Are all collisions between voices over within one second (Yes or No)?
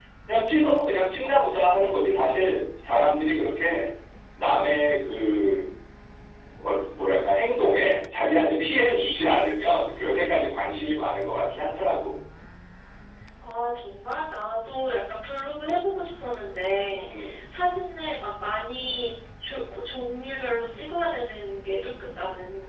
Yes